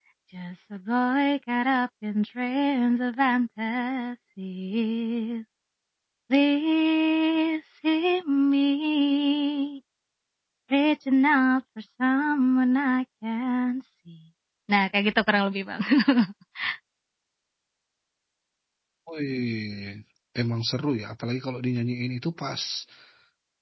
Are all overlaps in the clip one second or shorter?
Yes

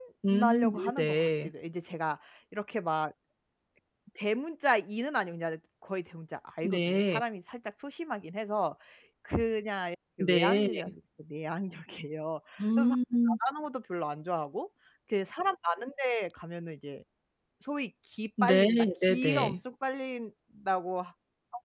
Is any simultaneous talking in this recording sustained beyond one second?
Yes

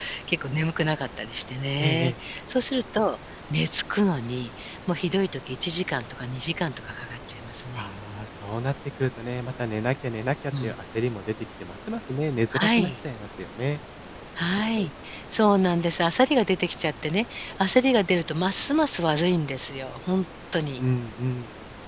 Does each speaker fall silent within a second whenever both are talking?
Yes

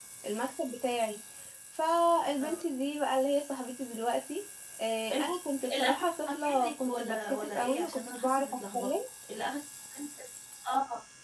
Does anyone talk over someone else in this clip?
Yes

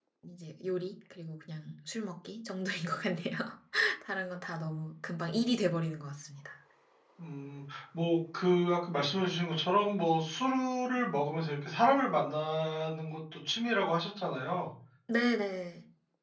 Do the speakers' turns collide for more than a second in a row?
No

